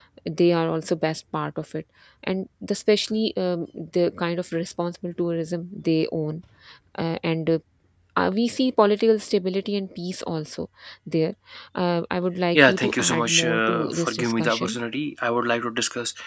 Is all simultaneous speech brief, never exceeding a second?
No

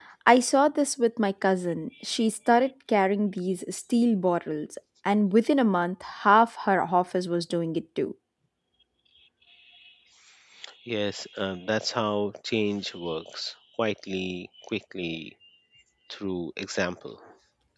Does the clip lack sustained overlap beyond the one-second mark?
Yes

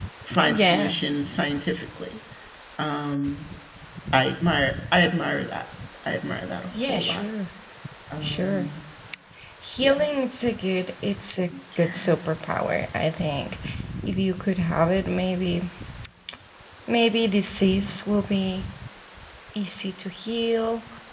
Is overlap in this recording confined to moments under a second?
Yes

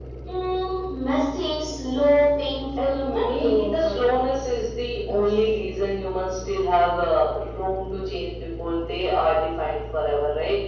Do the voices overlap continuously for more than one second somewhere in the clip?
Yes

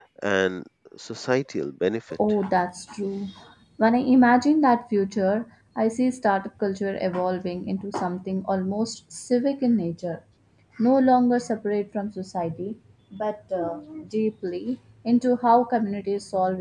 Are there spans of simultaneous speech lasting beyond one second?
No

